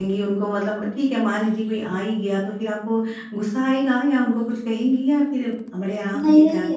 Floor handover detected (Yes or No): Yes